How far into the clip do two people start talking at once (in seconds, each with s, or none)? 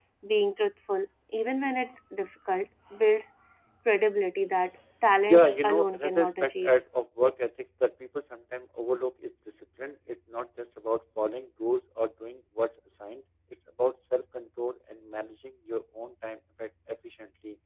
5.2 s